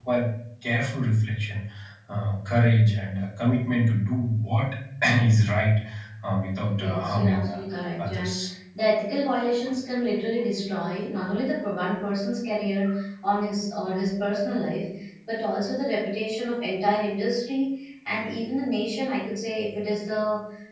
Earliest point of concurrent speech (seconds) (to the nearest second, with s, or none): 7 s